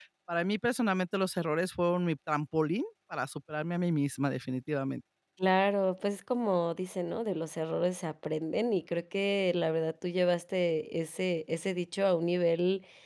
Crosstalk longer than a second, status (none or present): none